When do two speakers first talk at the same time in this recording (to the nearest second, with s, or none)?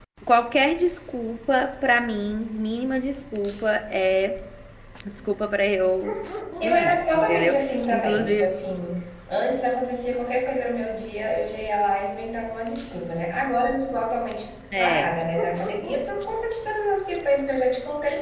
7 s